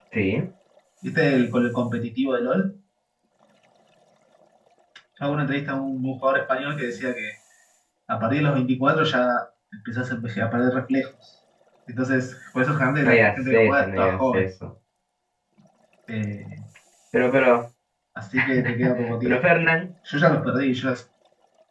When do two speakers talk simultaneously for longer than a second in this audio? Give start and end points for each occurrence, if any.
13.0-14.4

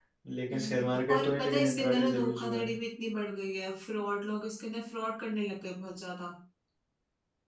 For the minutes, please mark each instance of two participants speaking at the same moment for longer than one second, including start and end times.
0.5-2.7

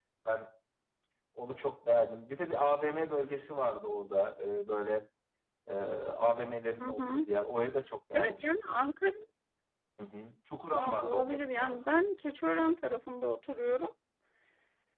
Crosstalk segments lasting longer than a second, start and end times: 10.7-11.9

